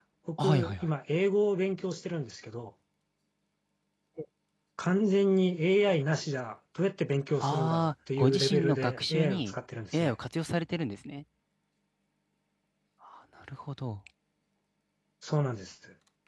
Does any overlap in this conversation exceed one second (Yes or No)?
Yes